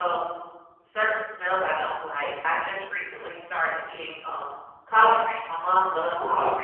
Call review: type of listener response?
listening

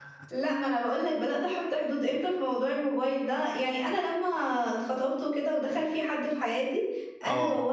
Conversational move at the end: listening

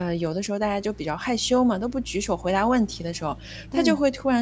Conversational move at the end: listening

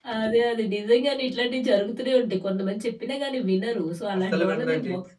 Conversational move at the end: listening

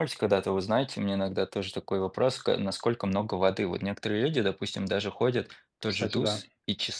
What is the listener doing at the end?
listening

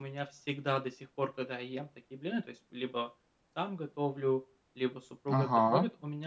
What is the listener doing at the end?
listening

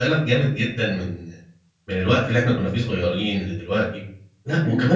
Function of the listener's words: taking over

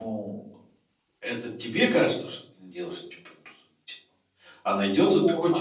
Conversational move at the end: listening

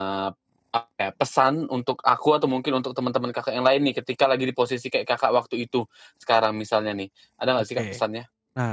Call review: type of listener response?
taking over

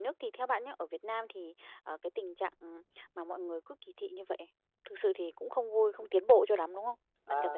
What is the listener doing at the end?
taking over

